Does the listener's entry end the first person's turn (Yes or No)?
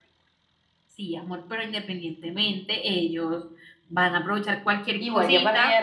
Yes